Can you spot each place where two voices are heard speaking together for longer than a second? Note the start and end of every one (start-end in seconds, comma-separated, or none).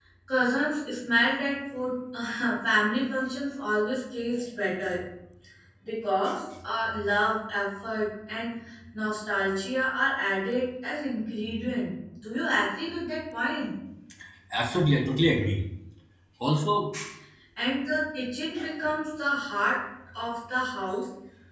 none